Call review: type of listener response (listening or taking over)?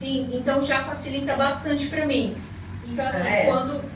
listening